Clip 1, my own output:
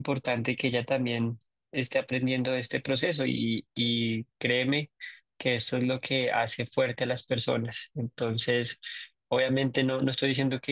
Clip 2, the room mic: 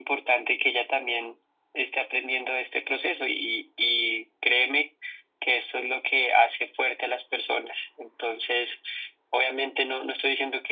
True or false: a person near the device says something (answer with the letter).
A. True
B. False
B